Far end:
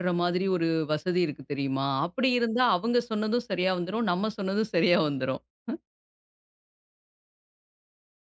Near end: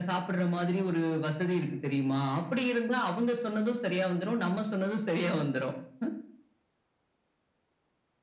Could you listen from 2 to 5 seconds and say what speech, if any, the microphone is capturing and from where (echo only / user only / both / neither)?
echo only